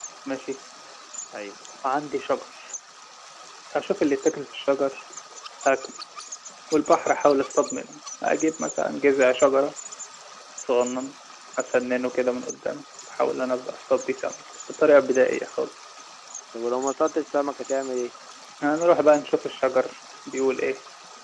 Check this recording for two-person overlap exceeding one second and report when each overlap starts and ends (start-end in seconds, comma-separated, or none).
none